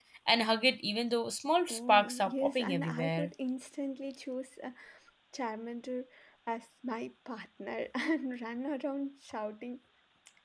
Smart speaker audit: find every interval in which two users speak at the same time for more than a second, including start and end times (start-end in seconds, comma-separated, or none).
1.7-3.3